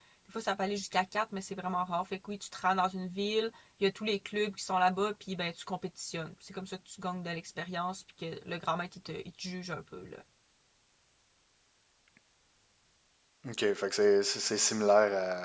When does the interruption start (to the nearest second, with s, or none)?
none